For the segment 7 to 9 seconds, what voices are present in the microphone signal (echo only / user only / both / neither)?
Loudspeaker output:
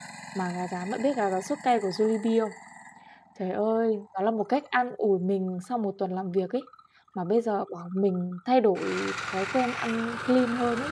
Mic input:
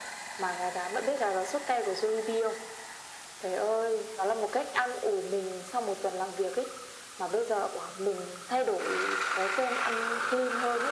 echo only